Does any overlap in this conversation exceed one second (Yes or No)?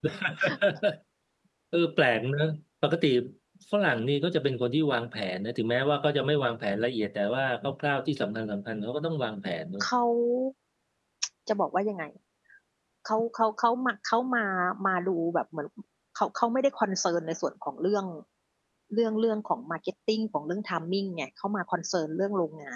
No